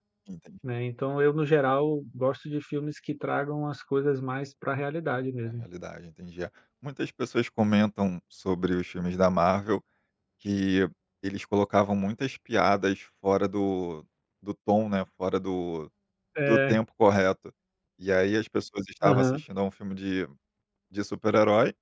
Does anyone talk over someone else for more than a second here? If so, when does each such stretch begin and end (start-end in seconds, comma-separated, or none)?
none